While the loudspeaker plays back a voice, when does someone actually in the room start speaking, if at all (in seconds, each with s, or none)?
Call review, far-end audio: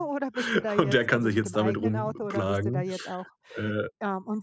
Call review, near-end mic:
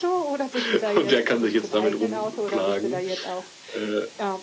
none